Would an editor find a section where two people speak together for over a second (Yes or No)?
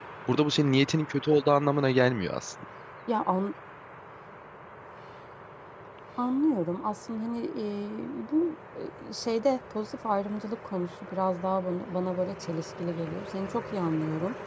No